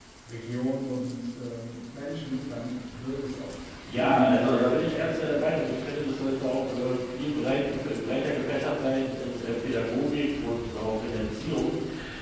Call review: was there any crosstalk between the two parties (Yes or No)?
Yes